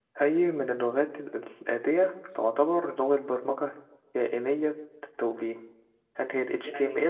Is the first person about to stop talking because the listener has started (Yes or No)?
Yes